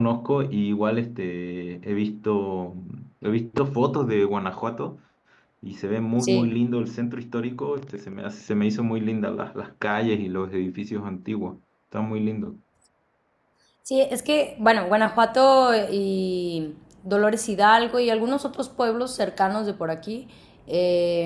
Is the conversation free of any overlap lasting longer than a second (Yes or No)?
Yes